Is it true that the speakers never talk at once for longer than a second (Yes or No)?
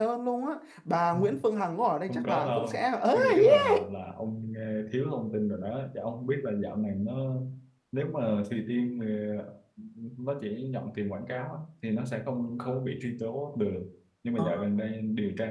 No